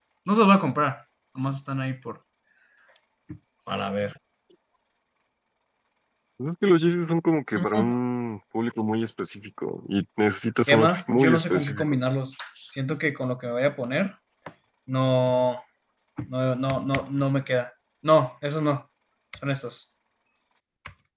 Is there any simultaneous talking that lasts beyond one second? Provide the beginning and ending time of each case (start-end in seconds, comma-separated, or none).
10.7-12.0